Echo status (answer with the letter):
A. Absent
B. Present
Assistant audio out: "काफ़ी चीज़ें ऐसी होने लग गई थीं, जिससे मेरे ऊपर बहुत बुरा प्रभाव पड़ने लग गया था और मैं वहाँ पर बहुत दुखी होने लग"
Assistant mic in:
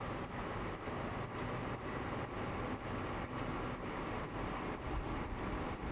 A